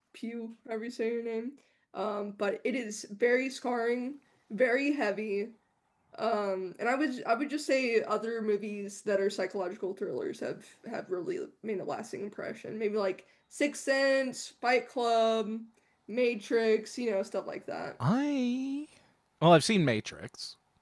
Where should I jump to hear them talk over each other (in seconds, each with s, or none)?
none